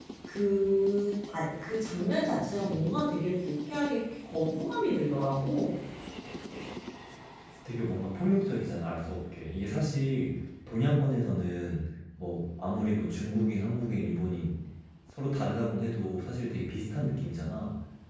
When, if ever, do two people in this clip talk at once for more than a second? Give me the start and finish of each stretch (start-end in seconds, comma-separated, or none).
none